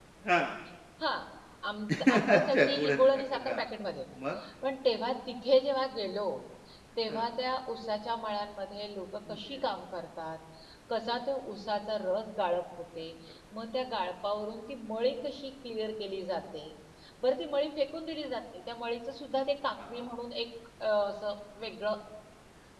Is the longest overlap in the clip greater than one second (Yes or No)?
Yes